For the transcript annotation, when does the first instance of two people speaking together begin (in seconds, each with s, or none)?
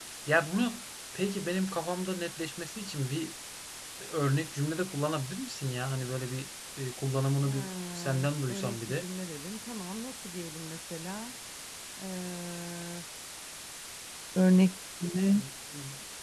7.4 s